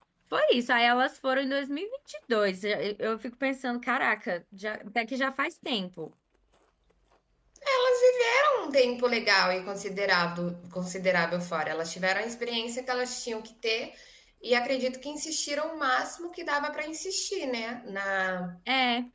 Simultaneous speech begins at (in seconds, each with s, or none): none